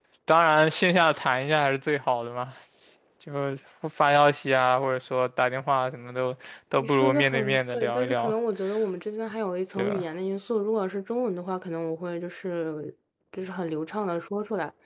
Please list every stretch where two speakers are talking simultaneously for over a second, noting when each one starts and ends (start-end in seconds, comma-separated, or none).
6.8-8.3